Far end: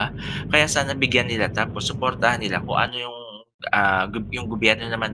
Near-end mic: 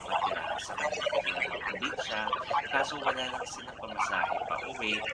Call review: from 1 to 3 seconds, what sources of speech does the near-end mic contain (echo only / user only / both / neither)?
both